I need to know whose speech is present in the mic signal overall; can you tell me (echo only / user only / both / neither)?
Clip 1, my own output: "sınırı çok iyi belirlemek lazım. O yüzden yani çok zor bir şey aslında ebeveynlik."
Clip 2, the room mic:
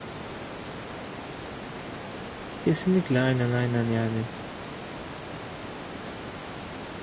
user only